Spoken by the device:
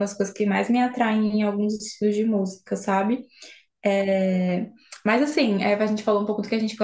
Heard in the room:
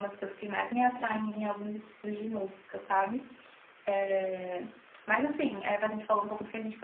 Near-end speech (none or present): none